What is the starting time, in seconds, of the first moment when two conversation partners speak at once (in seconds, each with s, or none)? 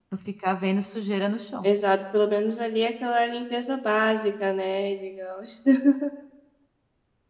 none